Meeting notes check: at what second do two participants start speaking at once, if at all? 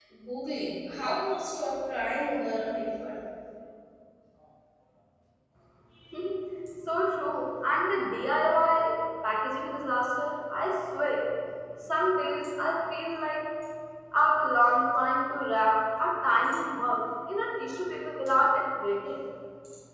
none

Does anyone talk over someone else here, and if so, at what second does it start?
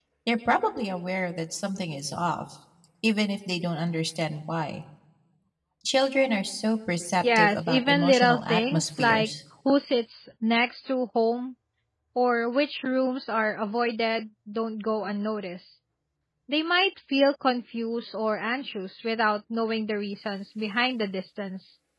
7.2 s

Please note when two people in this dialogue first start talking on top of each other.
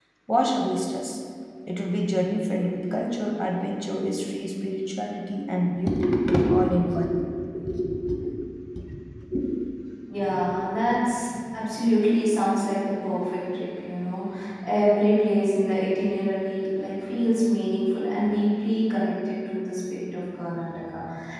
none

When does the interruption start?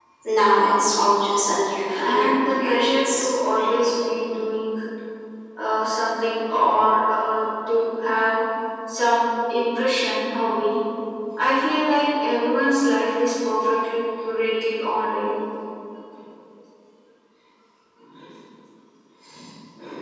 1.9 s

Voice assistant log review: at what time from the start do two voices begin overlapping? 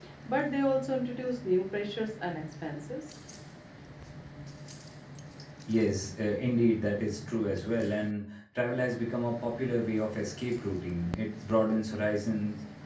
none

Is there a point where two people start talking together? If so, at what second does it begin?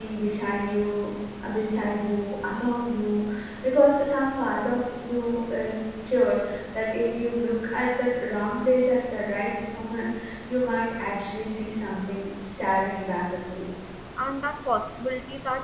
none

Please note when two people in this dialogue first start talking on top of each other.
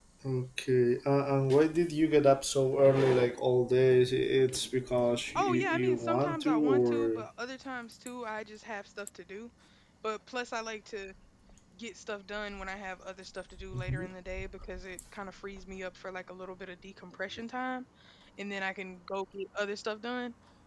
5.3 s

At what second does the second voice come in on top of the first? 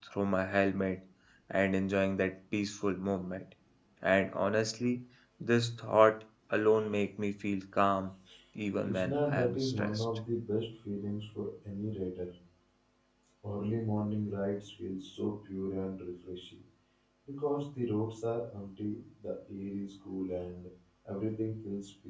8.8 s

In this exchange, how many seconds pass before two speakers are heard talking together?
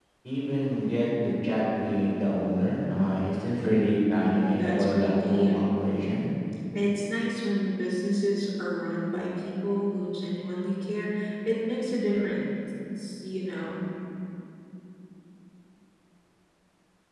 4.2 s

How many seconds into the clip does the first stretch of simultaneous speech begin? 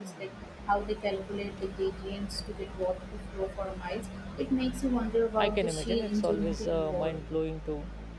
5.4 s

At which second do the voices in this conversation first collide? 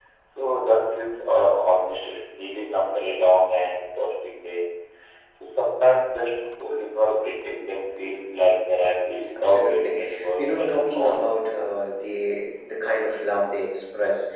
9.4 s

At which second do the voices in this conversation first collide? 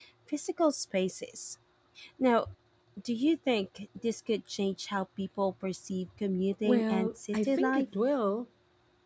6.6 s

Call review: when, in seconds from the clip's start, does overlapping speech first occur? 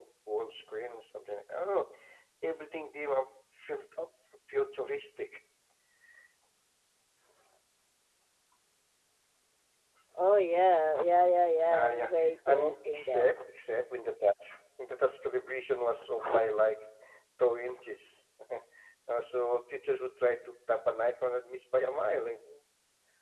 11.7 s

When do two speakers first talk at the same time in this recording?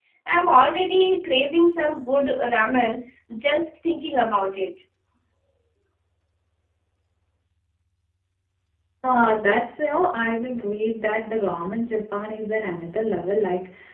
none

